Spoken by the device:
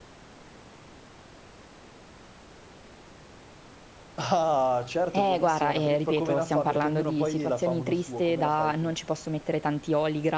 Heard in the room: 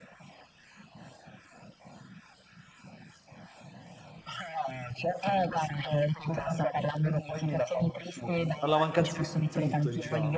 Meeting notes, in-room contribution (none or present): present